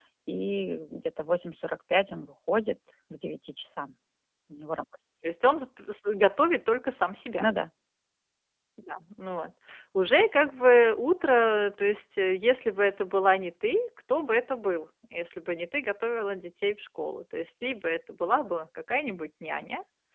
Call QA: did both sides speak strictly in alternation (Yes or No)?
Yes